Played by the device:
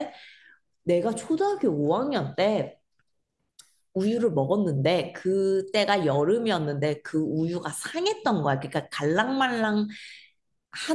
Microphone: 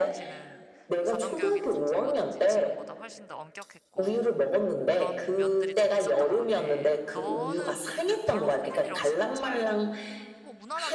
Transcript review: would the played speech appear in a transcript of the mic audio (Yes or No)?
Yes